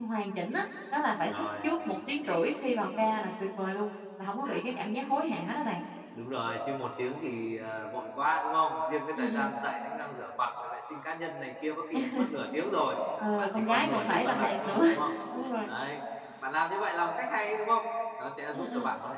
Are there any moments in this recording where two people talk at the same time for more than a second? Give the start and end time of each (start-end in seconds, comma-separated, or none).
13.4-14.8